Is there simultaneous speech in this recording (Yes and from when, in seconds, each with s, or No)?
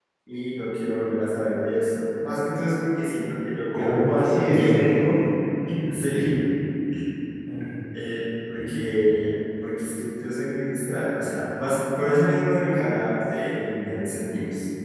Yes, from 3.7 s